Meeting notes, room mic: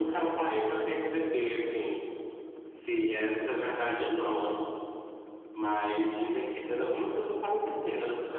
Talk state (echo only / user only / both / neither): echo only